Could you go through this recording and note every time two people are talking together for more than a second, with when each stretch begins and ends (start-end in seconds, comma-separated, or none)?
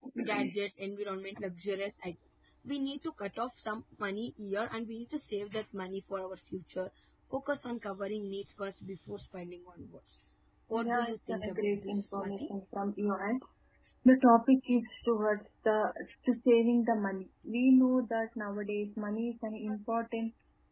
10.7-12.5